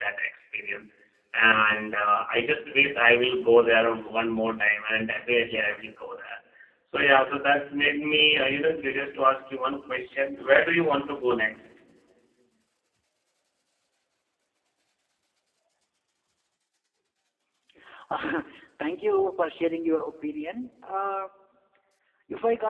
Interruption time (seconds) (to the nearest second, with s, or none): none